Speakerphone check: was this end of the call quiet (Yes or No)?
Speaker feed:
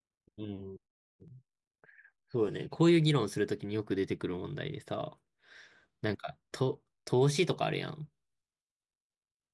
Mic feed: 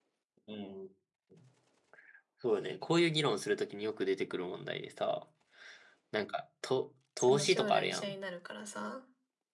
No